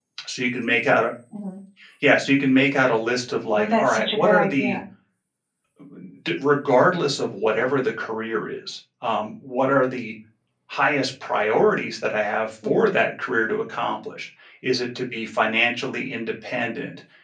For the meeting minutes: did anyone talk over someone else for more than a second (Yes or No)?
Yes